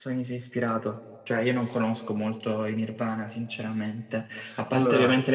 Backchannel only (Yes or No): Yes